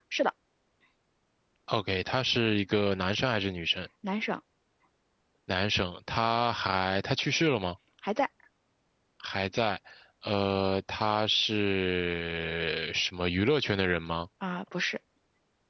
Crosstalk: none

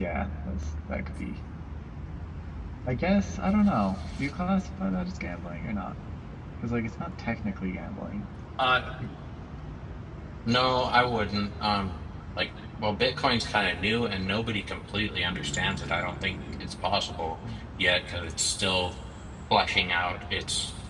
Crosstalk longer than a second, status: none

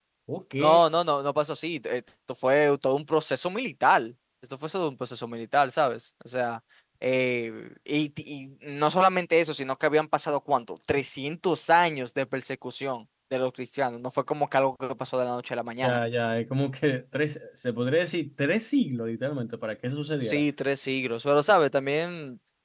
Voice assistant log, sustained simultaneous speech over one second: none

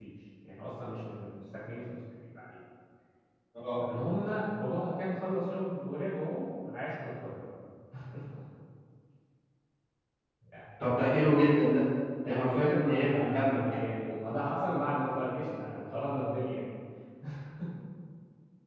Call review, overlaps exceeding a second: present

